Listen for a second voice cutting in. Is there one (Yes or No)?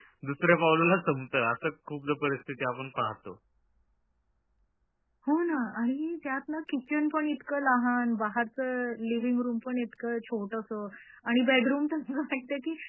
No